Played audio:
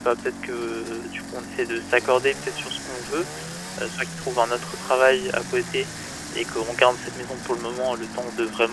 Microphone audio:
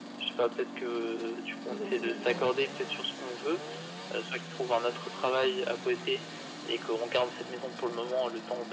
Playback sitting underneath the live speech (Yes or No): No